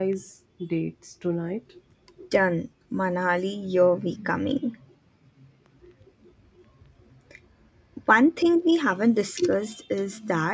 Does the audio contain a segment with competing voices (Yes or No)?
No